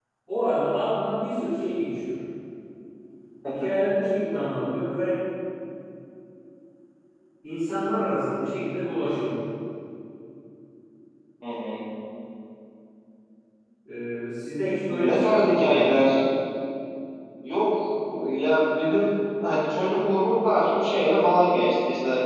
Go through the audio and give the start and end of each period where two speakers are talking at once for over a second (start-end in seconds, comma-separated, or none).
14.9-16.2